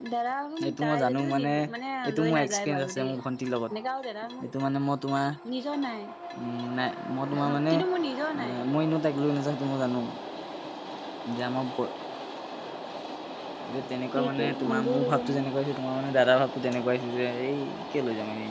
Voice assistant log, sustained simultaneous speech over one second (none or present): present